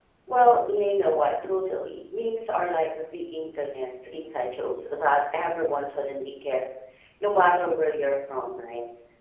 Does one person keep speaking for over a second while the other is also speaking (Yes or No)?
No